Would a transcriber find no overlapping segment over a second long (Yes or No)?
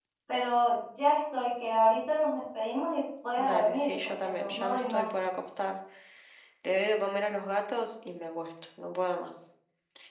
No